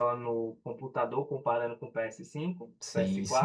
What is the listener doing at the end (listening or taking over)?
taking over